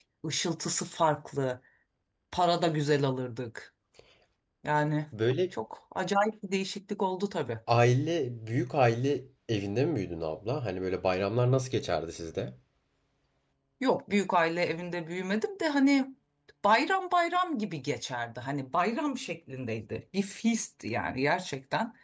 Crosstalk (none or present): none